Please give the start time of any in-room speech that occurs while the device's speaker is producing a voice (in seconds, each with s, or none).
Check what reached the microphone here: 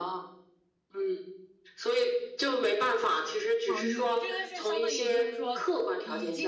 3.6 s